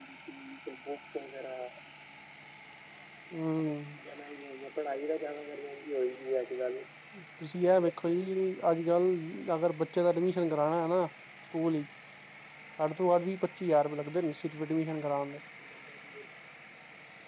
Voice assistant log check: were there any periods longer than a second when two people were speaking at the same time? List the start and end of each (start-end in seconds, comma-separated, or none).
none